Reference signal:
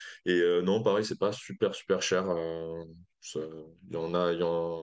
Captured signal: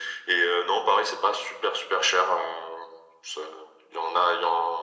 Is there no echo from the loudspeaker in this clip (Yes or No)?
No